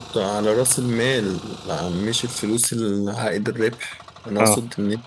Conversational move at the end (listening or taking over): listening